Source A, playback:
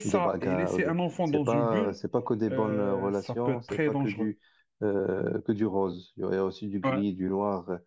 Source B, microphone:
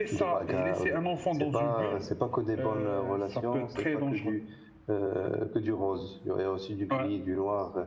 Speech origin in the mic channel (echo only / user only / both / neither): echo only